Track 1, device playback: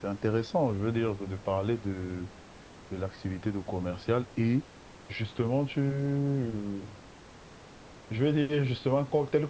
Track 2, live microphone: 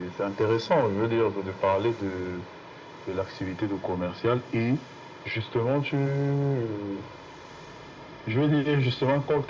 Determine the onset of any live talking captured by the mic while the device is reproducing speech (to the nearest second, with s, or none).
none